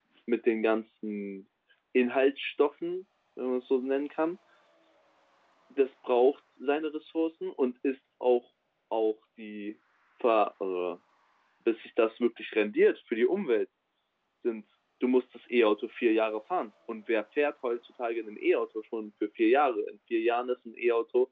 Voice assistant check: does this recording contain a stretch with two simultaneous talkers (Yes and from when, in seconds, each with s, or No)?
No